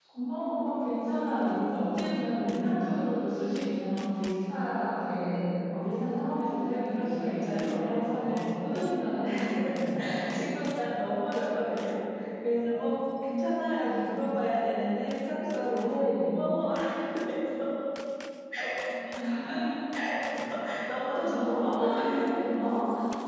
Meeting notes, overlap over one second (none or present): present